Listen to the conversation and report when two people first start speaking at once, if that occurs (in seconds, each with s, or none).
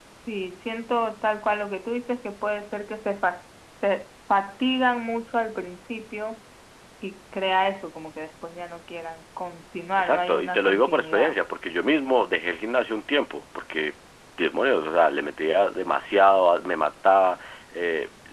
10.0 s